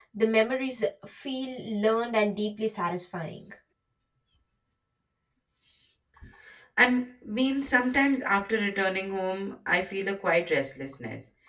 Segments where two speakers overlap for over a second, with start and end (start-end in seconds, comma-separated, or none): none